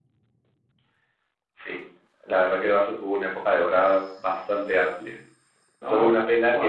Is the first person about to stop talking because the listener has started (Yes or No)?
No